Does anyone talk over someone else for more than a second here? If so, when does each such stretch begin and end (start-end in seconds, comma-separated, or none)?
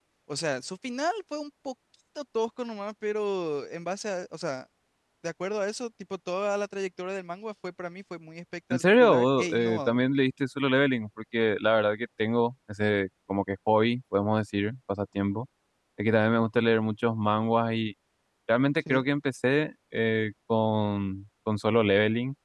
8.7-10.0